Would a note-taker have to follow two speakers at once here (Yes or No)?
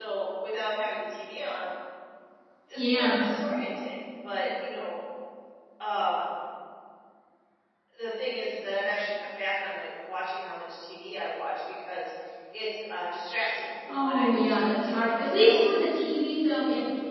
Yes